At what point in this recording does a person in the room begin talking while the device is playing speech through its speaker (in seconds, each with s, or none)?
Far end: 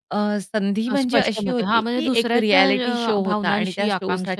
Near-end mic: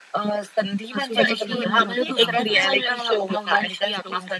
1.0 s